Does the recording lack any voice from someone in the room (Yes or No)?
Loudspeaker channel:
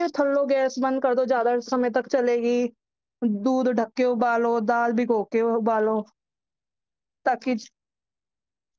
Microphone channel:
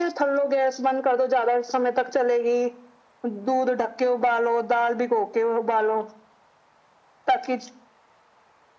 Yes